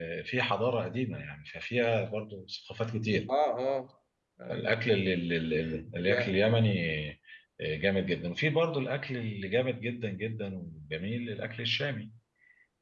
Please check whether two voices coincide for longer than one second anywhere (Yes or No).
No